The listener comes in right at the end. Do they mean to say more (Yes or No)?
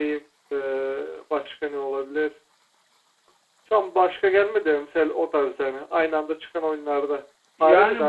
Yes